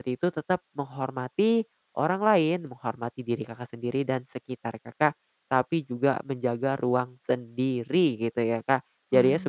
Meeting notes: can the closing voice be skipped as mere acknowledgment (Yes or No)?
Yes